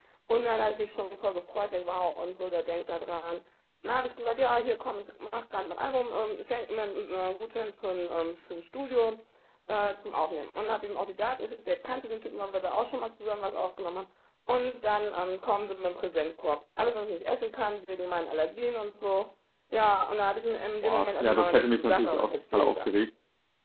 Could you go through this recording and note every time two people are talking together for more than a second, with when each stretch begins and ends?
20.8-22.9

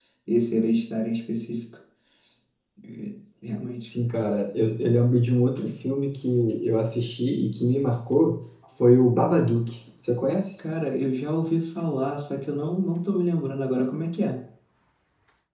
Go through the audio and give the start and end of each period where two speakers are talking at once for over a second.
none

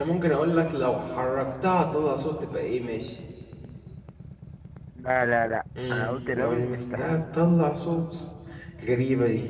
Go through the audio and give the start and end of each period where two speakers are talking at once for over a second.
5.9-7.1

